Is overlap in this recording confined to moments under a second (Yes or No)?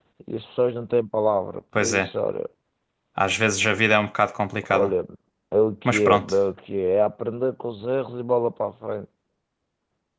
Yes